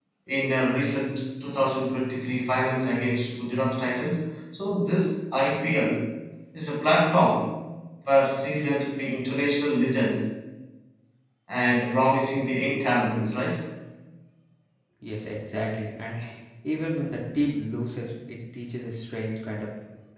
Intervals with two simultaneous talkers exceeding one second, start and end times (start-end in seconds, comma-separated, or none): none